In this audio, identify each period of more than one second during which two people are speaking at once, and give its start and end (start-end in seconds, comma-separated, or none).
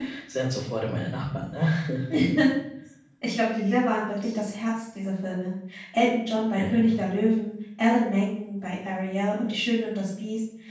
none